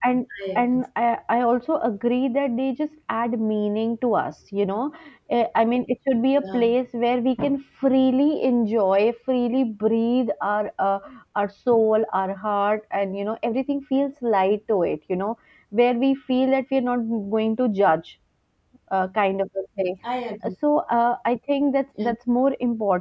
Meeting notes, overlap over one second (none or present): none